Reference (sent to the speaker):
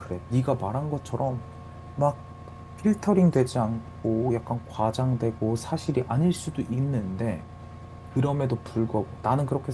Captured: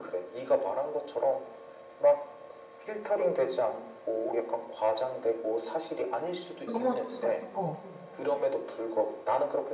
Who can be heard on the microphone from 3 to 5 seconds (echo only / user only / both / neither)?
echo only